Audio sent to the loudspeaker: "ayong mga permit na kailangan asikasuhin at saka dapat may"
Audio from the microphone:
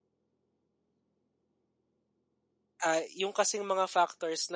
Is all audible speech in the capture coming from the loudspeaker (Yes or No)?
No